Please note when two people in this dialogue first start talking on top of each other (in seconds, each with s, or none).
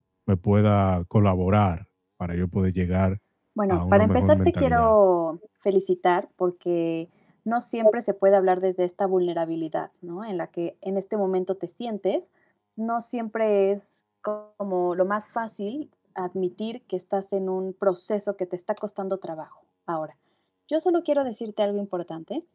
3.7 s